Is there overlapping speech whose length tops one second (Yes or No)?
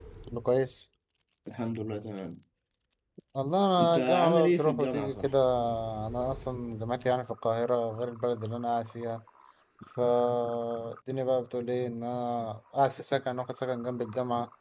Yes